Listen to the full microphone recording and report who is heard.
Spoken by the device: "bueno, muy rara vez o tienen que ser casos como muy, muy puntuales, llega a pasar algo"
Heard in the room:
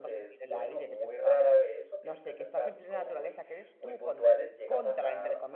both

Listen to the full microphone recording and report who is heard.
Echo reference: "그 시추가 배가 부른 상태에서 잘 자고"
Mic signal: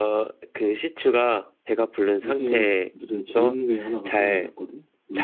both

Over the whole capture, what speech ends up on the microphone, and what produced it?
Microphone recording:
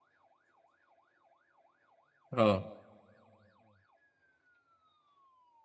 user only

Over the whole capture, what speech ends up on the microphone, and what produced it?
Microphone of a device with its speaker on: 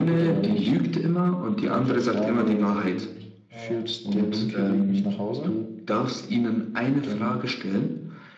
both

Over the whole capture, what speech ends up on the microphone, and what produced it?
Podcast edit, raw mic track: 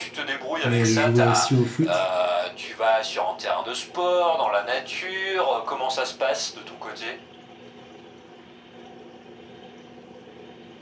both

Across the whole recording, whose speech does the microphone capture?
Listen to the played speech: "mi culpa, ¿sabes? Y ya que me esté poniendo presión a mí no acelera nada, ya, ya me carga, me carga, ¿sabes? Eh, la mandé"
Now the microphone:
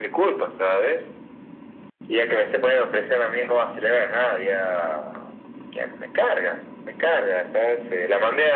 echo only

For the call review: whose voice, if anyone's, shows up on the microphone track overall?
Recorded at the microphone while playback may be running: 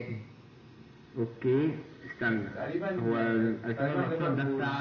both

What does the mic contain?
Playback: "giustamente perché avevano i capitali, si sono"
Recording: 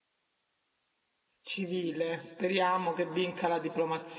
user only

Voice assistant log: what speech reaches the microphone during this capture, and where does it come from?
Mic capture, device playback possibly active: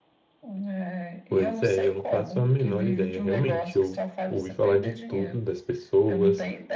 both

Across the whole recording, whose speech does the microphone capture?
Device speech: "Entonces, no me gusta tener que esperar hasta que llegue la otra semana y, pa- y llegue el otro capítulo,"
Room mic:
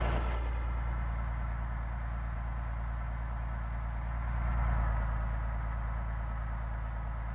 neither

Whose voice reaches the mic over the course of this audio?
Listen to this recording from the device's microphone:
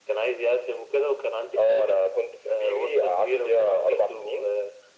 echo only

